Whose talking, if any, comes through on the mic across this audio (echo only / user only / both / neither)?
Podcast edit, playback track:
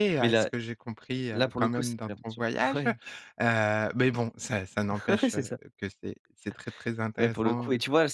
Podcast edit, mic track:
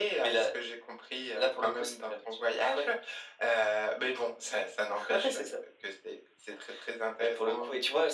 echo only